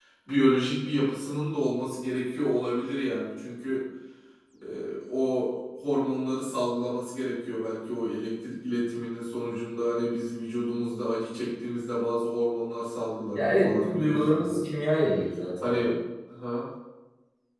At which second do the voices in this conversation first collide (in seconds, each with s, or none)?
13.3 s